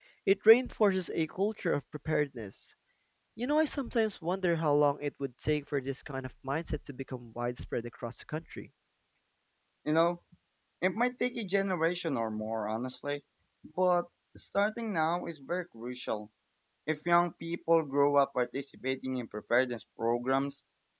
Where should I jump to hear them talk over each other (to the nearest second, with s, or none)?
none